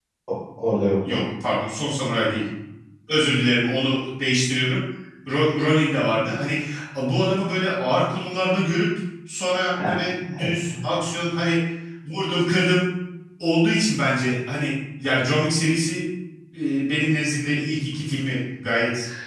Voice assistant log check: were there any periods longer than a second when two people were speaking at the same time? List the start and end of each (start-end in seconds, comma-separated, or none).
none